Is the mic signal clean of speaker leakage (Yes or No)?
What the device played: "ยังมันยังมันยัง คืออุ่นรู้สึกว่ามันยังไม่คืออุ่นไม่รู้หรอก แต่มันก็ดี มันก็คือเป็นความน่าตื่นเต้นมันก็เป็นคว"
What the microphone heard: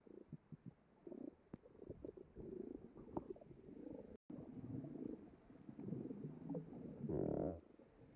Yes